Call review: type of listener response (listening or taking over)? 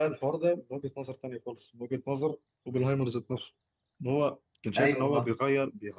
listening